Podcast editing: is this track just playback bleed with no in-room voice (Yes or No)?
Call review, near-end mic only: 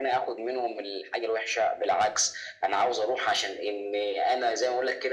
Yes